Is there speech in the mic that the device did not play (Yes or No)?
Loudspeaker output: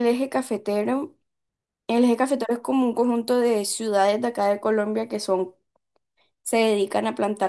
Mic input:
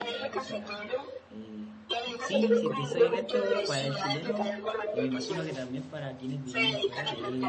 Yes